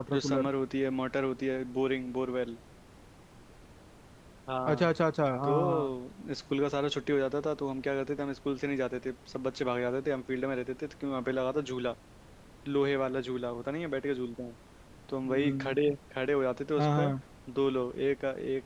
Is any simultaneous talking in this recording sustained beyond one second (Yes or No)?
No